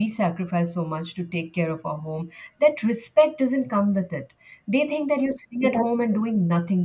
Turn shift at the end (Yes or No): No